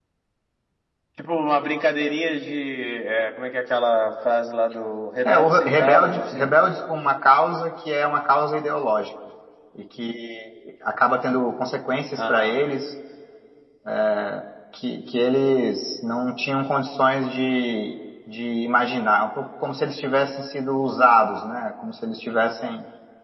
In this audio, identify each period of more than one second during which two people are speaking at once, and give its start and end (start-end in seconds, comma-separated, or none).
5.2-6.6